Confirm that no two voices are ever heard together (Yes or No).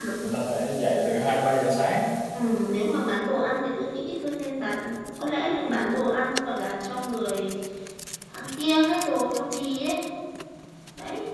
Yes